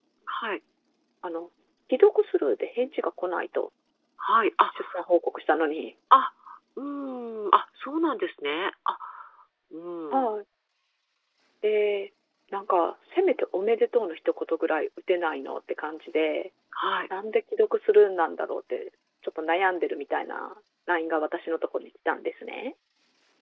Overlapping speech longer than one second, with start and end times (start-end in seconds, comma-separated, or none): none